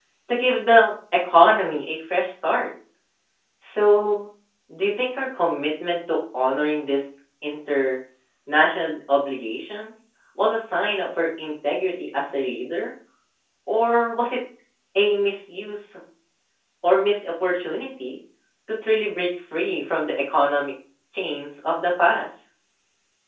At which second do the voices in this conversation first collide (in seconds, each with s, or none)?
none